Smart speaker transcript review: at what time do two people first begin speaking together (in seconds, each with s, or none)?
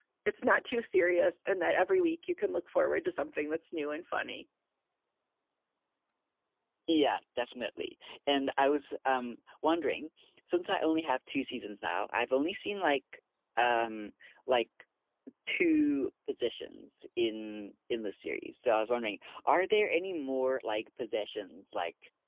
none